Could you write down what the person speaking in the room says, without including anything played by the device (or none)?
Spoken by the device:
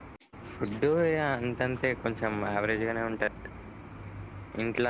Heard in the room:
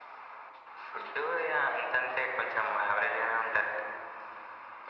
none